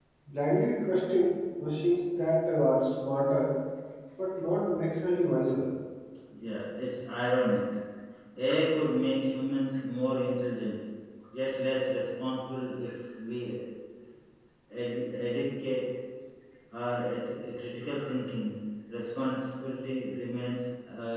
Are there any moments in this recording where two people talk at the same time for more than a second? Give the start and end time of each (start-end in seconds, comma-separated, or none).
none